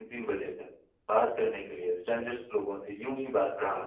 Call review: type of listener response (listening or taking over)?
listening